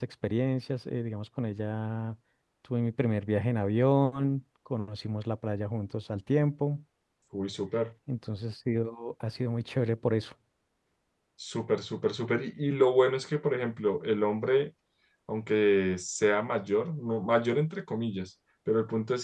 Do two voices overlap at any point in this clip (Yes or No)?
No